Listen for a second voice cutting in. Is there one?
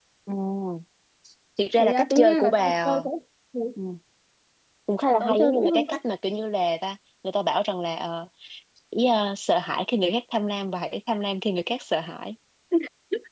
Yes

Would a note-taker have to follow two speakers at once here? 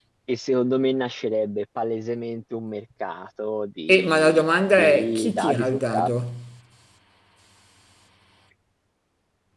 Yes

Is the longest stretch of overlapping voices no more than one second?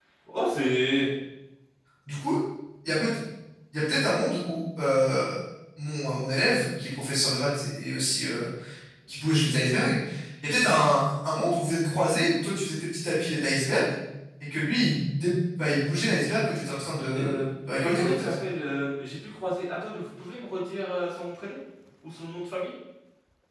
Yes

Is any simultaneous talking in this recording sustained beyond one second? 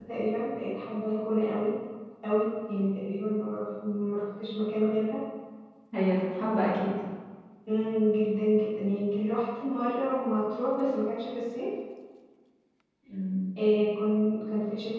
No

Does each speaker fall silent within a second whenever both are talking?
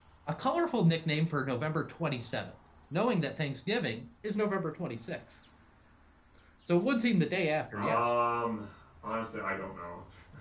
Yes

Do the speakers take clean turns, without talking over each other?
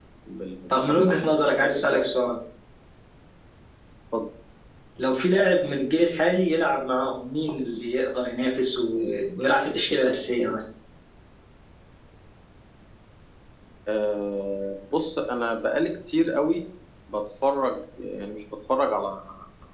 No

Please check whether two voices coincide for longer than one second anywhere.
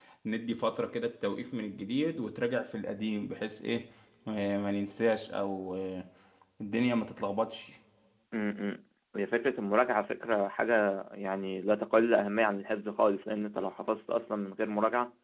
No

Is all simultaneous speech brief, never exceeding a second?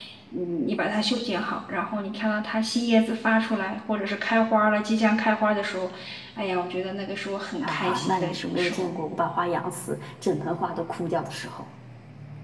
No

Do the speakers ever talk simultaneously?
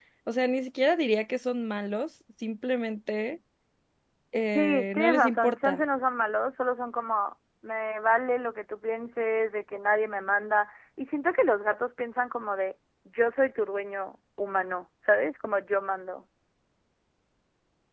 Yes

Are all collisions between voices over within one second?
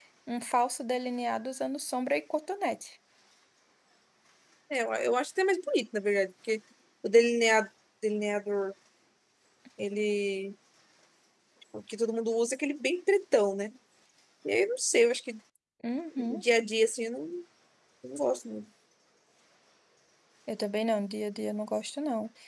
Yes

